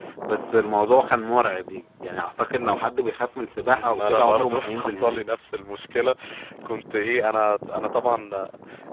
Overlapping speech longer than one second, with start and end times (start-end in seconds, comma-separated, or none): 3.6-5.2